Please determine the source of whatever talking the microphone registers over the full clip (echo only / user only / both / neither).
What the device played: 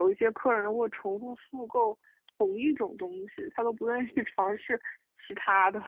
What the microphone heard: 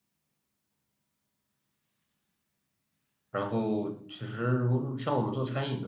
user only